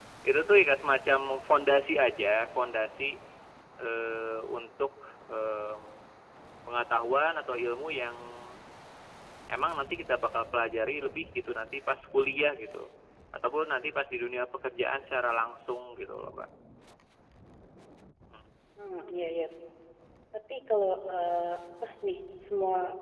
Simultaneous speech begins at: none

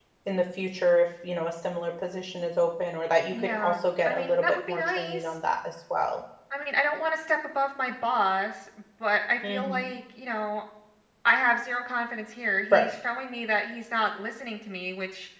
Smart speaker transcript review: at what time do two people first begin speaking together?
3.3 s

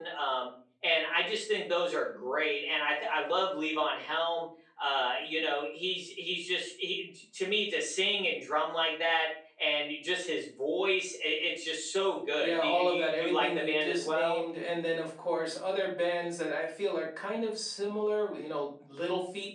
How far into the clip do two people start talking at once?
12.4 s

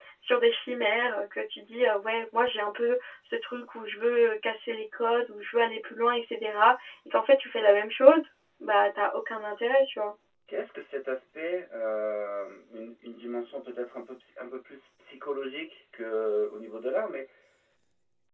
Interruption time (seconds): none

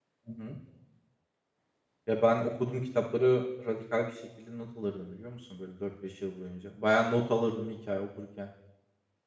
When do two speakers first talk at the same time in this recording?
none

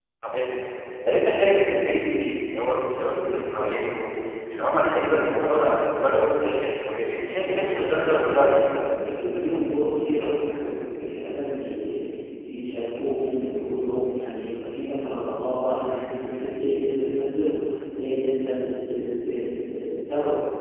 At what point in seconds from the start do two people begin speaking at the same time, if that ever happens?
7.4 s

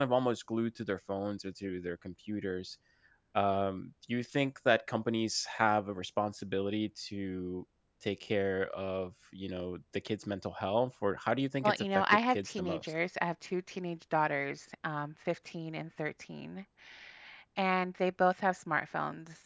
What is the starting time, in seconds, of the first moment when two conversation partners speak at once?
11.6 s

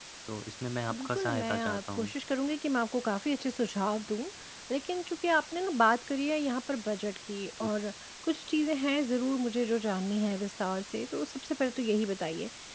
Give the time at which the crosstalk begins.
0.9 s

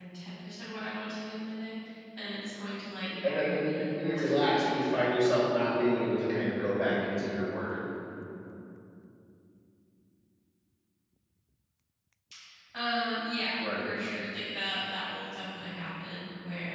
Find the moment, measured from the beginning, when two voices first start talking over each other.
3.0 s

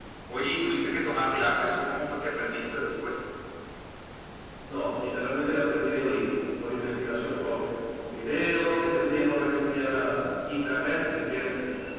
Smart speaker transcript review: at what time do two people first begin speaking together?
none

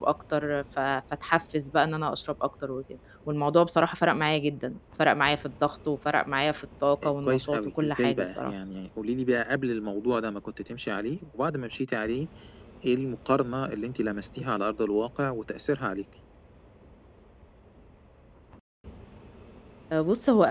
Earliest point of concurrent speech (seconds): 7.0 s

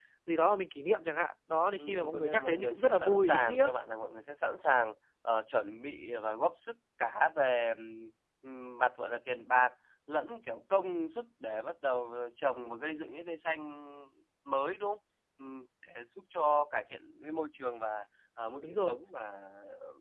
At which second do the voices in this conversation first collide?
1.7 s

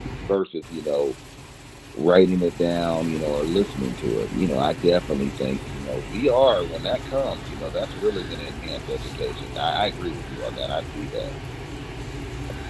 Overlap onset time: none

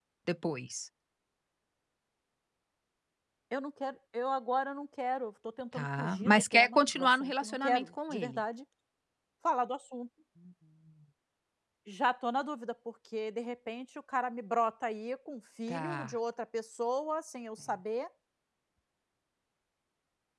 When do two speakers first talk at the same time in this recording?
5.7 s

